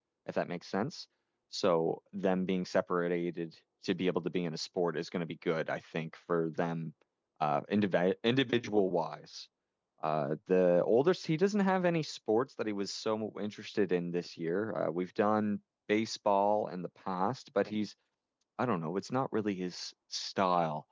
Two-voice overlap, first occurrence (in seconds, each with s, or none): none